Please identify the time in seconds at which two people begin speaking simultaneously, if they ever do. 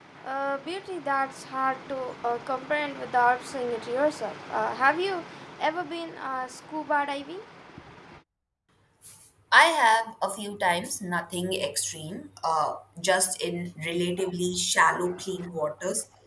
none

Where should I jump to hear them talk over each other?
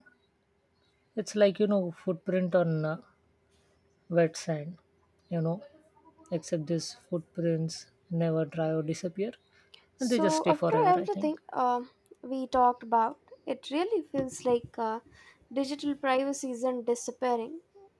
10 s

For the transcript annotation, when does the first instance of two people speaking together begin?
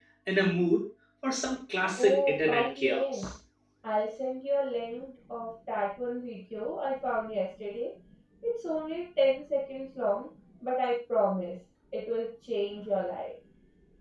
2 s

